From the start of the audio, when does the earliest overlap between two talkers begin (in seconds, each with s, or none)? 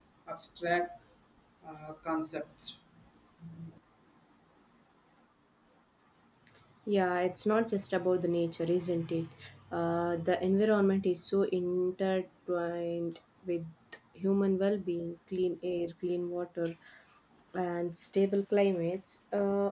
none